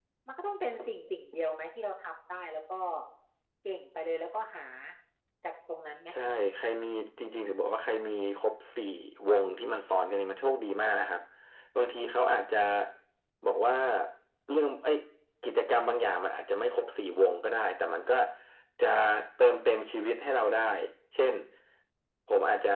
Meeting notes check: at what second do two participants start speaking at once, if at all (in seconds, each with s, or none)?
none